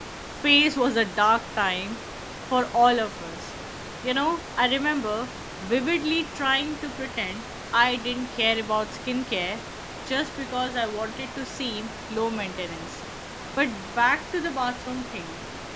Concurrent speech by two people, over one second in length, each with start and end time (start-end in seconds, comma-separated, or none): none